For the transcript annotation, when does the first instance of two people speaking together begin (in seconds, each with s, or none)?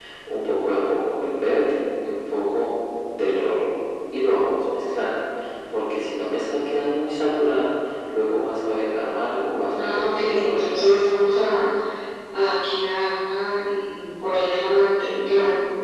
9.7 s